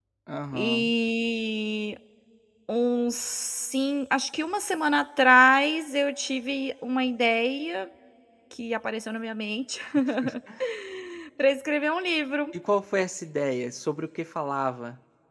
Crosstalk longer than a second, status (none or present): none